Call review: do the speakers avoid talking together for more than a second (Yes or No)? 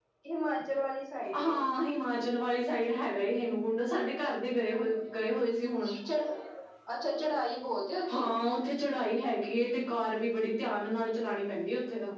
Yes